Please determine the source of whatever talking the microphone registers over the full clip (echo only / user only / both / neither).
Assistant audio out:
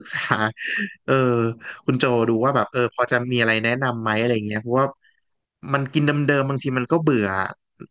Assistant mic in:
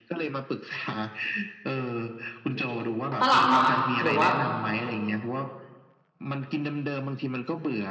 both